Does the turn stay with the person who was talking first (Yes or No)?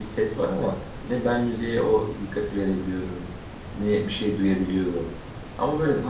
Yes